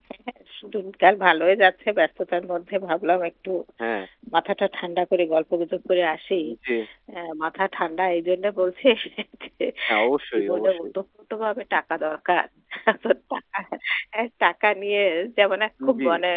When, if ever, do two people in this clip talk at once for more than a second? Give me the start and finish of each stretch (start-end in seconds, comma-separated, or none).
none